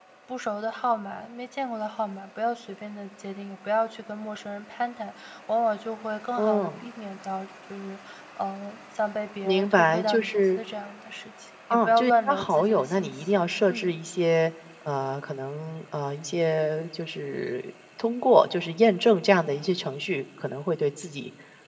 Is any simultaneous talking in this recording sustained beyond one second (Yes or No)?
Yes